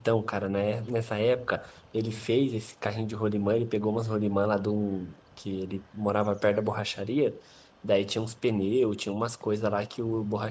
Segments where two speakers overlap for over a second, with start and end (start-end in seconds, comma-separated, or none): none